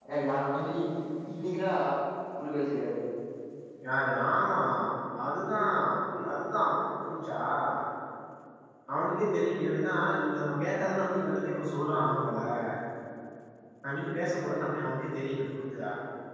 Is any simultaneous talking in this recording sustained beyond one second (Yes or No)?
No